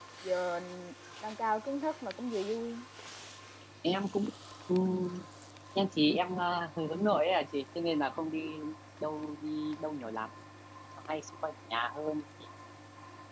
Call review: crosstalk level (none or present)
none